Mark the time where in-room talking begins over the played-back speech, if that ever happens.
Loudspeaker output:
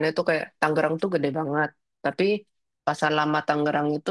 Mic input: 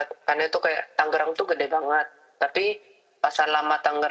none

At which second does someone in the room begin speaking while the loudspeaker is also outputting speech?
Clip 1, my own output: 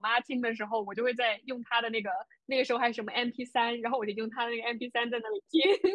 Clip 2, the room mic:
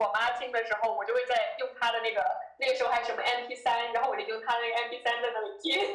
none

